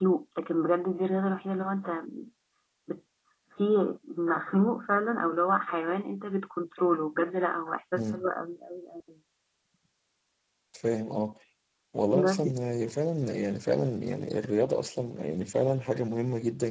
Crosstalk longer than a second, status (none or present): none